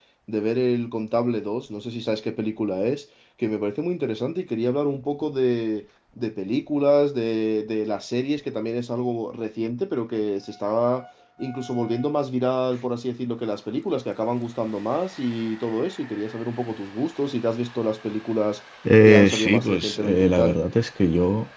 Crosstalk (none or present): present